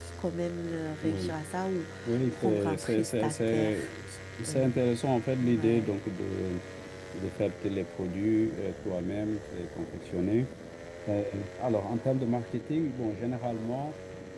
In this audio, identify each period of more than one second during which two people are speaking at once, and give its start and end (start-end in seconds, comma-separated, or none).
2.3-3.8